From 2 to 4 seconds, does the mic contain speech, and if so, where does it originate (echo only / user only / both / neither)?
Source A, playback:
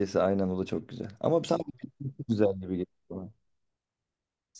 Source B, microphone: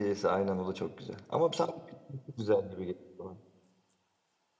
echo only